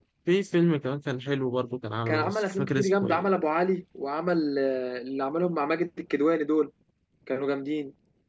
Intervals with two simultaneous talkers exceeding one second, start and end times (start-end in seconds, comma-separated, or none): 2.1-3.3